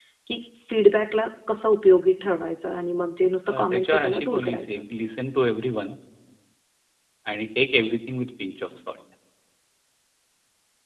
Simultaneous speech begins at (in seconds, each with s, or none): 3.5 s